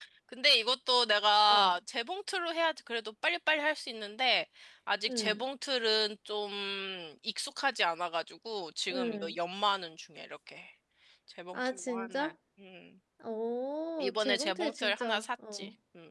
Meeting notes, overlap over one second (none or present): present